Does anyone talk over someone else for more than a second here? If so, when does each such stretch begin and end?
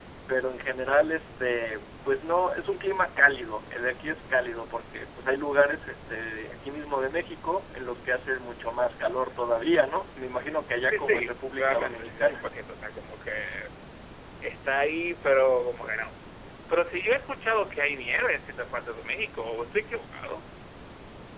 10.9-12.5

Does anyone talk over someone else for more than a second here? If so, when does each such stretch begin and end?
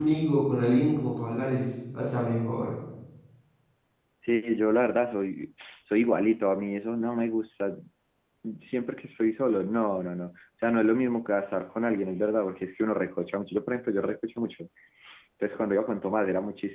none

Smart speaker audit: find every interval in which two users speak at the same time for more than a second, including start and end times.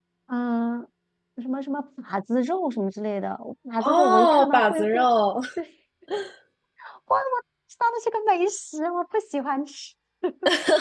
3.8-5.1

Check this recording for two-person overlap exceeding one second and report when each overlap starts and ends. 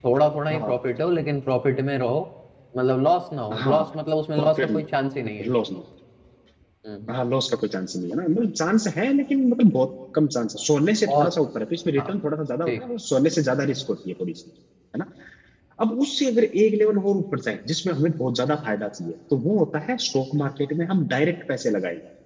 none

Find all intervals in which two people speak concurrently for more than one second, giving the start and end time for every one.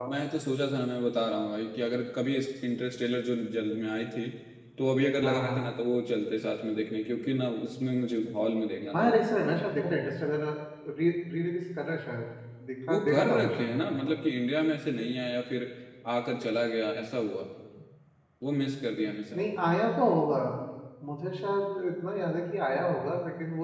12.9-14.1

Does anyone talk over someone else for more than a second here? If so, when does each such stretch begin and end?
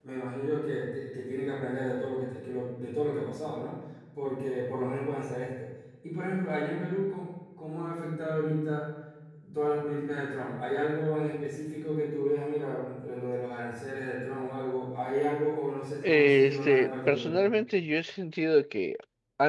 16.0-17.3

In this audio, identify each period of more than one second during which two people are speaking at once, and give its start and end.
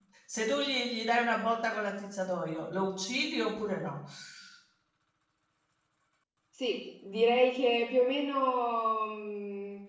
none

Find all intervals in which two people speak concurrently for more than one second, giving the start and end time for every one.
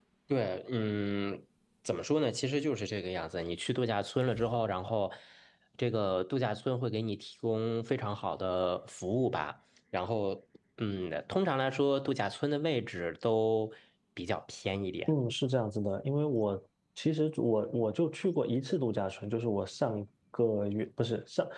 none

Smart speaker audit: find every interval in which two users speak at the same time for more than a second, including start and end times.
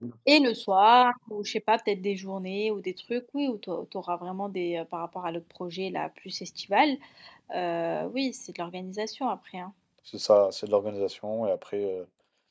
none

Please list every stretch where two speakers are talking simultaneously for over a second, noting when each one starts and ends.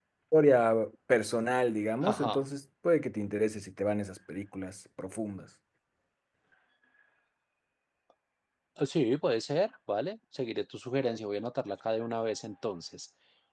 none

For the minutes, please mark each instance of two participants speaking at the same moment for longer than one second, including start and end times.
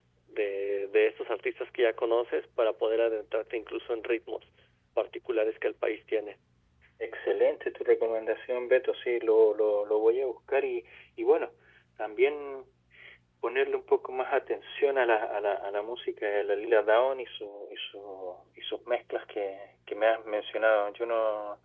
none

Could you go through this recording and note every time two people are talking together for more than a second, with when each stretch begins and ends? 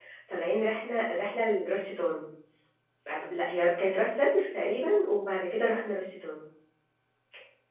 none

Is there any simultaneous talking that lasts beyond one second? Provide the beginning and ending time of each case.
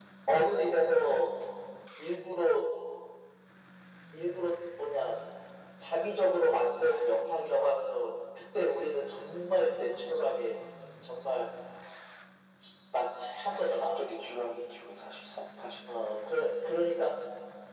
none

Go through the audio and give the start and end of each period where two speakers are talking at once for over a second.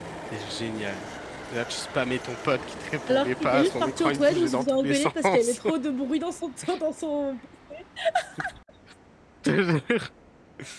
3.1-5.6

